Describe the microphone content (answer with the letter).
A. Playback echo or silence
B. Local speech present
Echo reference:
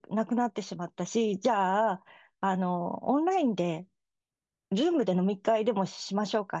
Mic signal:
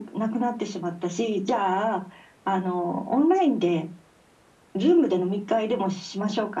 A